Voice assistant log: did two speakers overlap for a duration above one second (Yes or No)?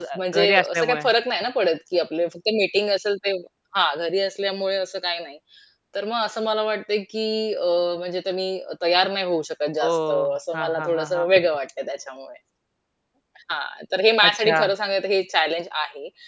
Yes